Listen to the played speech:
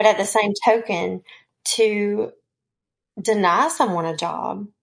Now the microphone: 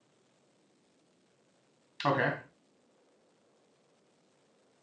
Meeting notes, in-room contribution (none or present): present